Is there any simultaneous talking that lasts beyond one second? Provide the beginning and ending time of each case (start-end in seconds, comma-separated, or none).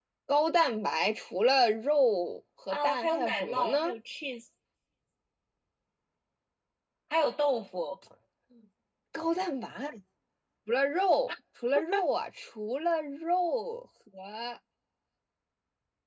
2.7-4.0